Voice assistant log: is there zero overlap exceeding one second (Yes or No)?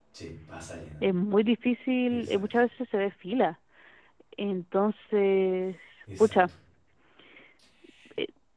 Yes